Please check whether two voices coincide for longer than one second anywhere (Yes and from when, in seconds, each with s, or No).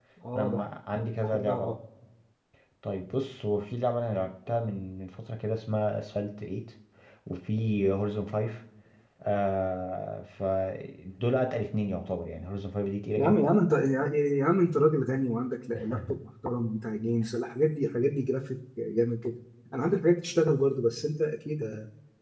No